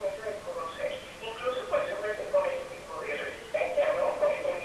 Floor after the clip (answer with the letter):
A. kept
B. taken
A